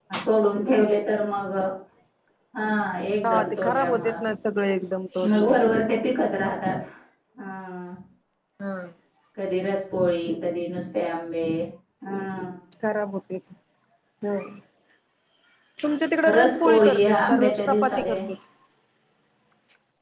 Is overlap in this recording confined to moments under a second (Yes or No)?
No